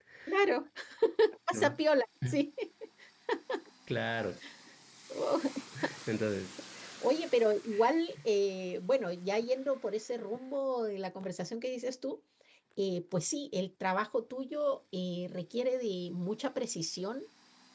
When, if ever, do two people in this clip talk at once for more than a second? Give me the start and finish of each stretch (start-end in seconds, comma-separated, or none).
none